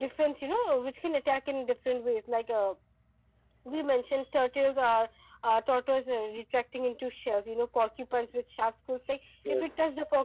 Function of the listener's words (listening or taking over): listening